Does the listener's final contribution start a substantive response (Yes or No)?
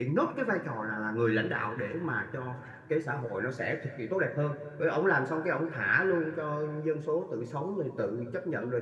No